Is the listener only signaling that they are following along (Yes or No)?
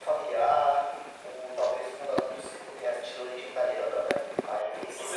No